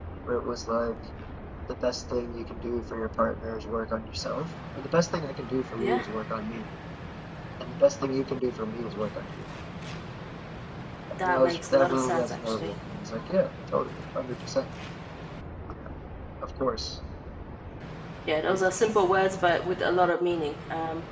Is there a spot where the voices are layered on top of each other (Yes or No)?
Yes